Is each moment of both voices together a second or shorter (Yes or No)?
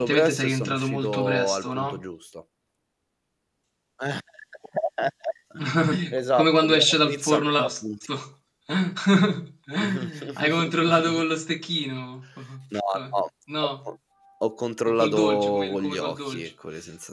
No